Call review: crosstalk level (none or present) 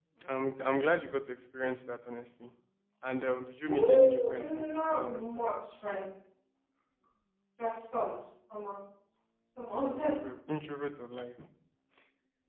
present